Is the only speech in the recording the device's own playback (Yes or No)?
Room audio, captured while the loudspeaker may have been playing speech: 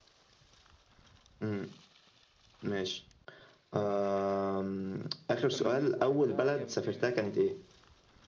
No